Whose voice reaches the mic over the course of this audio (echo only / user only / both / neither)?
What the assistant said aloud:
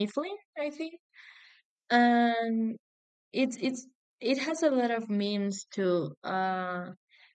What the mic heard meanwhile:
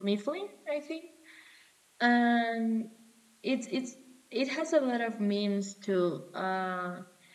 echo only